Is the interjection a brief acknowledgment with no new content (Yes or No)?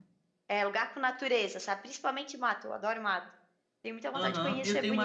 No